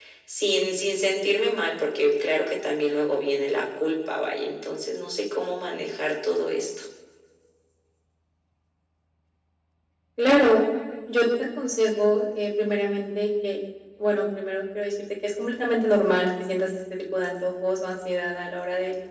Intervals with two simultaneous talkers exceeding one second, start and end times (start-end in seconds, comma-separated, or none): none